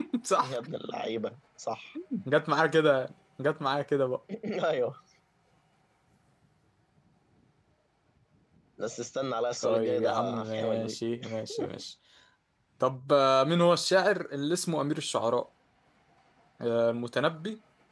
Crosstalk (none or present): present